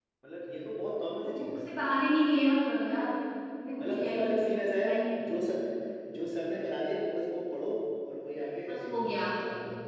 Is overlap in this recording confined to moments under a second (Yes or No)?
No